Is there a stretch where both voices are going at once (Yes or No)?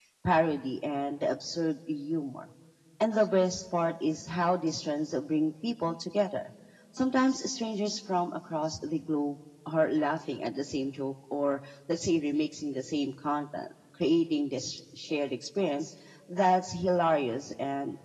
No